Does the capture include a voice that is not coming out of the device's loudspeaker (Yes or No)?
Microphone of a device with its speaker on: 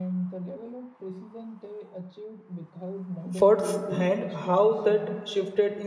Yes